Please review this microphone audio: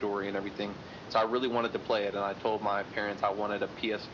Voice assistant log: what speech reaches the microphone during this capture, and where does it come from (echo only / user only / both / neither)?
echo only